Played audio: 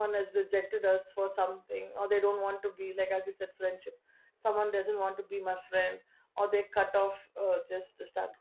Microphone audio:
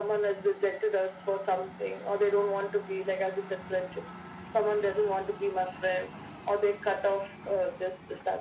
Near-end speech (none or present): none